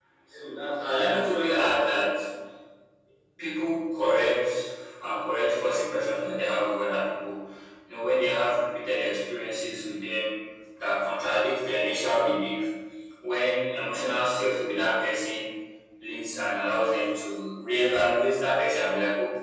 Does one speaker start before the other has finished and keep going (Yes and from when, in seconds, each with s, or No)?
Yes, from 0.8 s